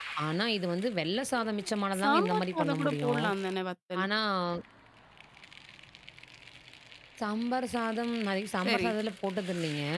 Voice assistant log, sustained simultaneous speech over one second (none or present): present